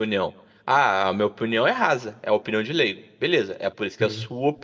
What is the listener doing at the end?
listening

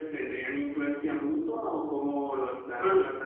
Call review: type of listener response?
taking over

